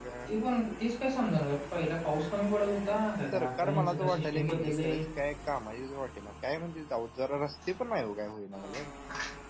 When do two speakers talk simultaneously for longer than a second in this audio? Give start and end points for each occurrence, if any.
3.3-4.8

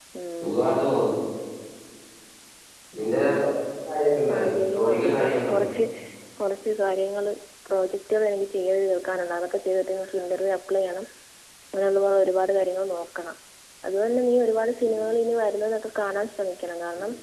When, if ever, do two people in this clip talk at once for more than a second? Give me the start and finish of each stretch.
4.3-5.7

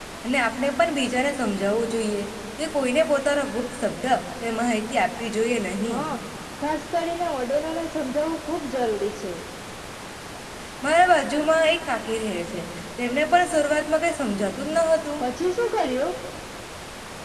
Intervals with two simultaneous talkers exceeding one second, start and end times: none

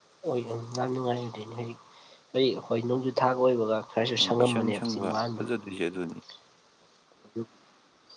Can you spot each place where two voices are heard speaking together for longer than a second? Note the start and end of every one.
4.2-5.4

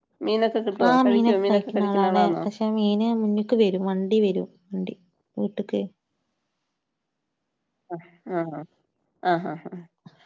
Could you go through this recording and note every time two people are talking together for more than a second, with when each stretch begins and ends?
0.9-2.3

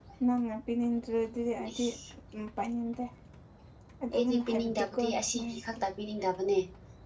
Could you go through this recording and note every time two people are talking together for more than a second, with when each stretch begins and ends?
4.2-5.8

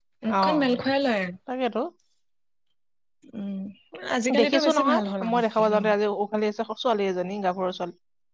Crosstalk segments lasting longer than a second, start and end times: 4.4-5.9

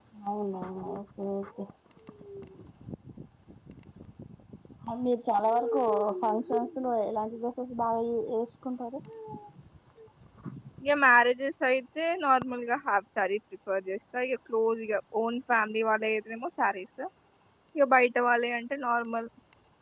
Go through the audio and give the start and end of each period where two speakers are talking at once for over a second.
none

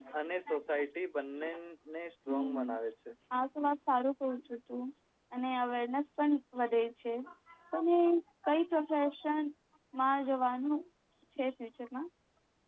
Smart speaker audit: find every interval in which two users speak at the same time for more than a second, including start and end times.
none

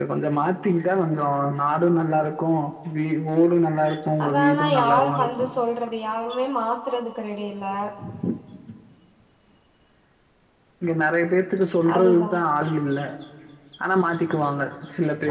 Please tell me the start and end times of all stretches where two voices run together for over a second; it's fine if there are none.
4.2-5.5

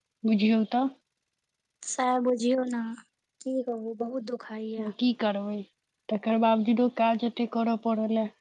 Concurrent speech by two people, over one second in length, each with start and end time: none

